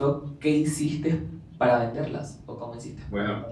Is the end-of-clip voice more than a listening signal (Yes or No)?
Yes